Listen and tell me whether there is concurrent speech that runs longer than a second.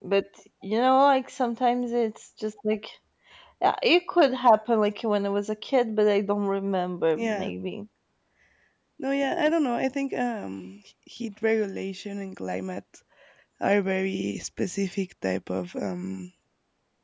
No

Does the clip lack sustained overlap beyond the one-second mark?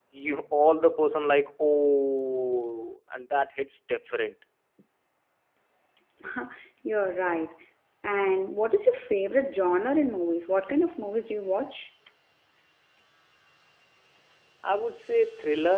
Yes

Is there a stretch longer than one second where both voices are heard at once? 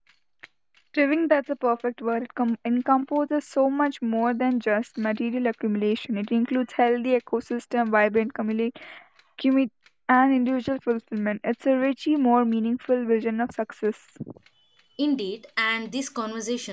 No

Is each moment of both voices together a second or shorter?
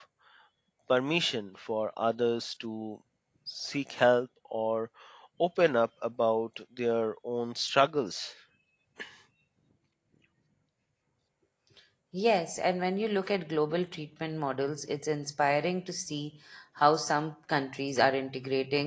Yes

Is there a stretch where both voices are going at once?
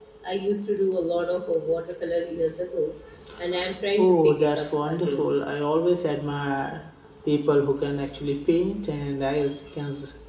Yes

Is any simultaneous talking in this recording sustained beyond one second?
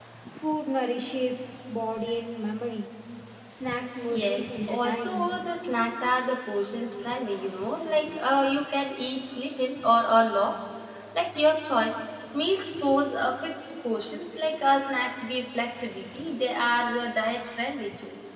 Yes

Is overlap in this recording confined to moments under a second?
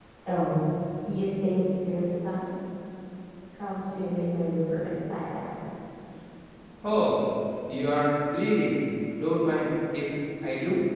Yes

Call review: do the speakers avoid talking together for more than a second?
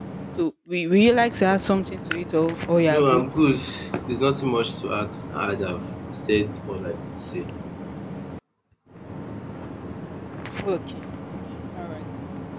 Yes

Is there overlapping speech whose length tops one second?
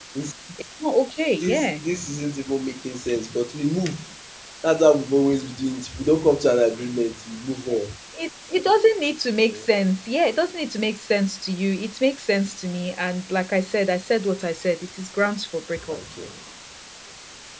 No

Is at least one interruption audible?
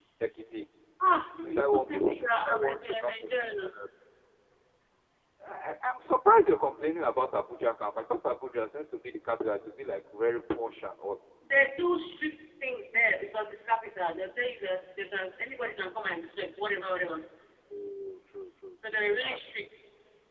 Yes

